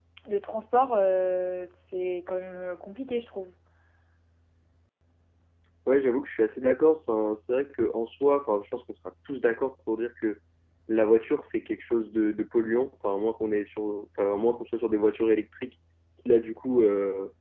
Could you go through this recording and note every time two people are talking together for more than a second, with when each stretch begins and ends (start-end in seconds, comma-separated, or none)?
none